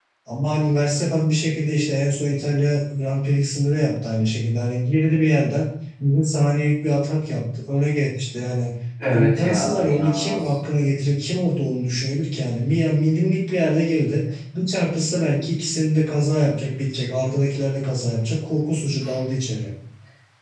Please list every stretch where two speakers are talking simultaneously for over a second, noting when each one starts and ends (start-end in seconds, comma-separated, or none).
9.1-10.5